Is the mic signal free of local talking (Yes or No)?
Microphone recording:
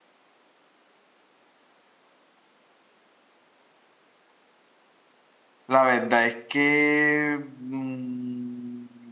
No